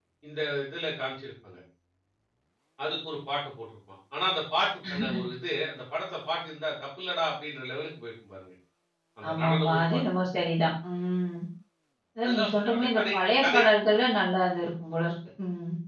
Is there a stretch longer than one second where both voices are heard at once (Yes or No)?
Yes